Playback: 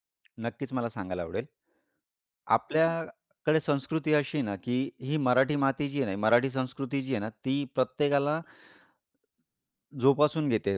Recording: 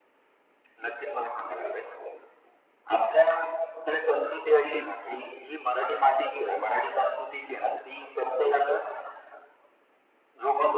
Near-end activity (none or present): none